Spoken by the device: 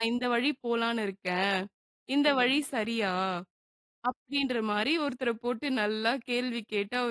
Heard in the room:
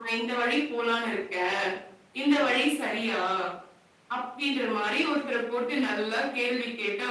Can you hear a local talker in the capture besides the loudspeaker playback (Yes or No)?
No